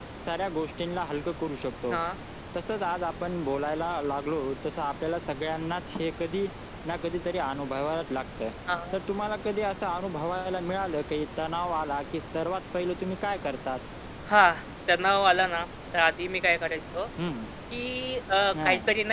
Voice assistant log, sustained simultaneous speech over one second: none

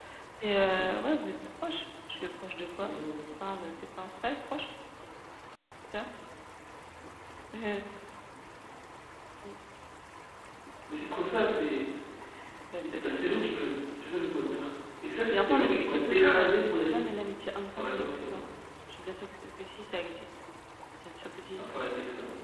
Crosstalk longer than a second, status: present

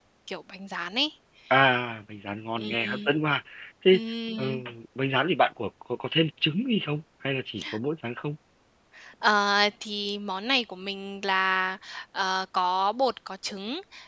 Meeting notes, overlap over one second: none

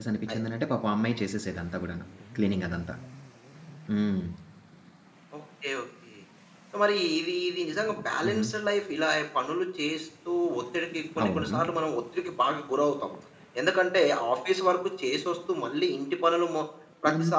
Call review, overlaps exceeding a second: none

